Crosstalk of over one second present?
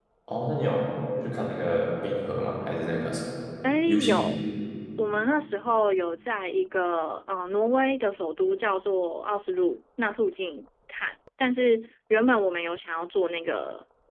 No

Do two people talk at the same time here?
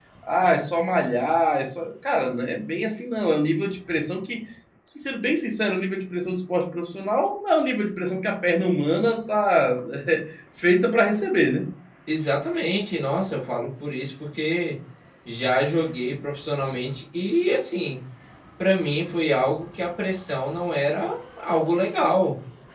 No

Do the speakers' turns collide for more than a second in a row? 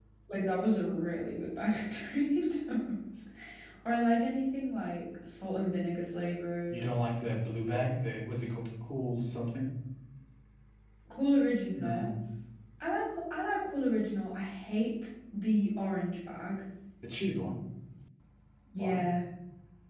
No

